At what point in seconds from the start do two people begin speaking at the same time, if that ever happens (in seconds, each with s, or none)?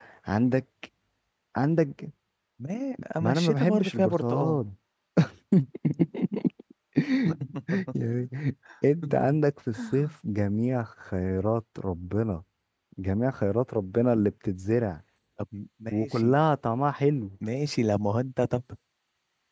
3.2 s